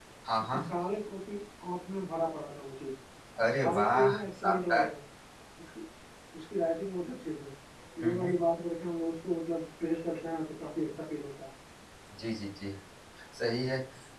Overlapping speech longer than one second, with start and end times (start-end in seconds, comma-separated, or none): 3.6-4.8